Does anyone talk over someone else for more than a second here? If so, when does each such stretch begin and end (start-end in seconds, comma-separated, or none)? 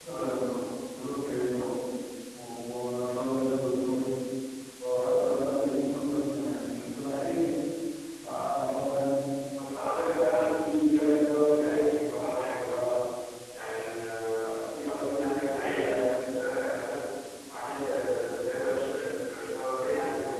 none